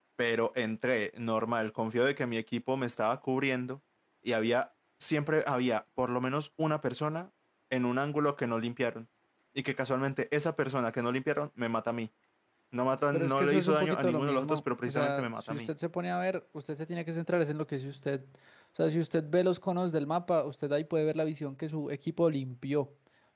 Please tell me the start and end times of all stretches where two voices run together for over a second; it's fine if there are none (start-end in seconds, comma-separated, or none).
13.1-15.7